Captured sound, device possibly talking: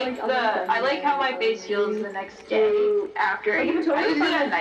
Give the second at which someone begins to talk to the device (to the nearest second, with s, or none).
none